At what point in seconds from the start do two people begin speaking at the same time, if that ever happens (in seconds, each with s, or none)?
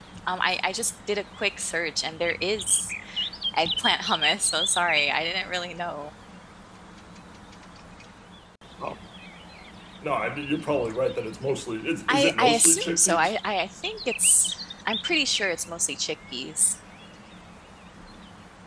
12.1 s